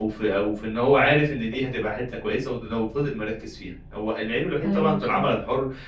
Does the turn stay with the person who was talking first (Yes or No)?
Yes